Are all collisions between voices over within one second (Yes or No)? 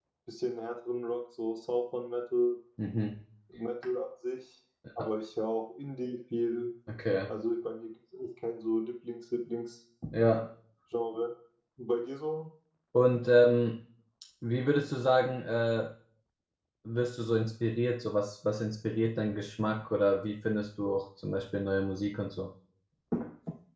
Yes